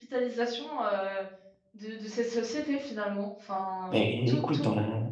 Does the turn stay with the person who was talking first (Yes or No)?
No